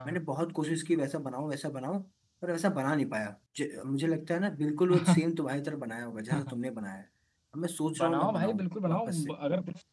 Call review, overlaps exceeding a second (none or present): present